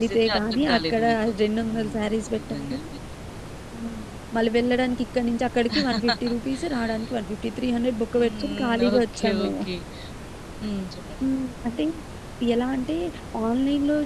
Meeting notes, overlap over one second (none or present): present